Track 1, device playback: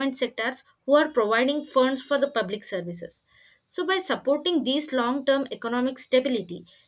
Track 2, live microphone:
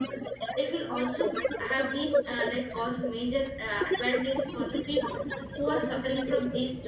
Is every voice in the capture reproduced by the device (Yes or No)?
No